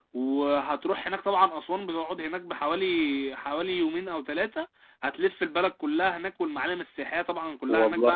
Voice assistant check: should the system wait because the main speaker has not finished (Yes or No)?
Yes